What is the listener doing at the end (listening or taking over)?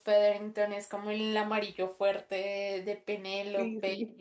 listening